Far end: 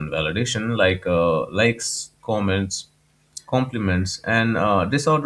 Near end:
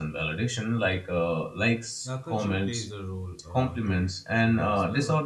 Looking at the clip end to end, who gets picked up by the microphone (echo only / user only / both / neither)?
both